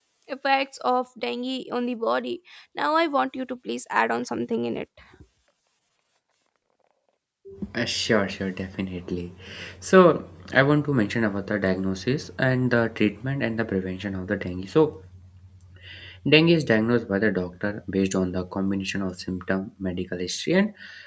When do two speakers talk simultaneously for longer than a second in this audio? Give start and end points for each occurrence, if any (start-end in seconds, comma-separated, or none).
none